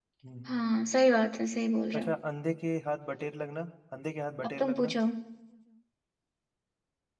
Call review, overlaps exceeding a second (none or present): none